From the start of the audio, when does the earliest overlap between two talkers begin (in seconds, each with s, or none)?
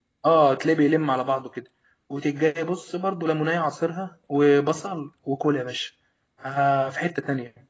none